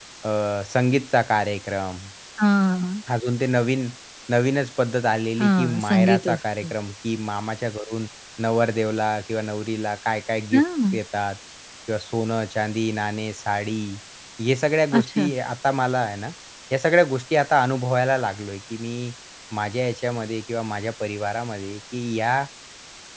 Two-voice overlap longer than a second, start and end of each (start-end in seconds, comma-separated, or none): 5.4-6.7